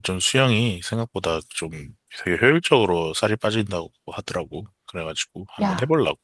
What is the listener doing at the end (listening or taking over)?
taking over